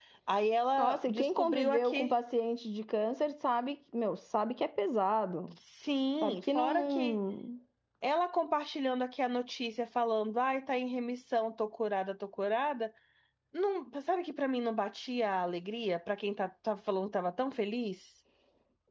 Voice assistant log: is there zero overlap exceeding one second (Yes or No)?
No